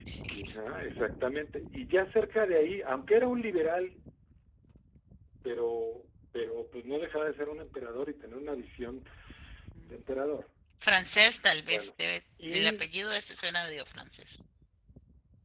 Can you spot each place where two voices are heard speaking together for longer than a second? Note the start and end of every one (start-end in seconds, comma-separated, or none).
none